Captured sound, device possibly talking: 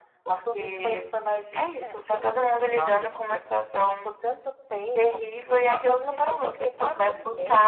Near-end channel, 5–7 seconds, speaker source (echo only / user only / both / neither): echo only